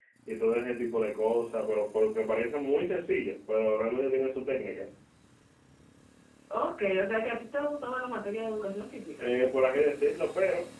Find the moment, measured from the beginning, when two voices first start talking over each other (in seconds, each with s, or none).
none